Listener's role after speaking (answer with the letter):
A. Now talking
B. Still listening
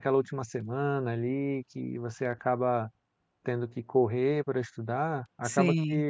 B